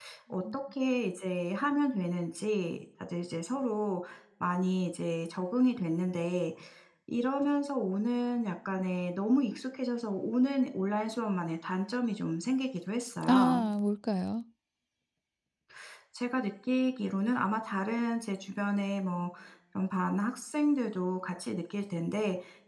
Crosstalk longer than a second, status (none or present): none